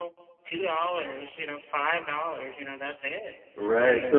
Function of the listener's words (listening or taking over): taking over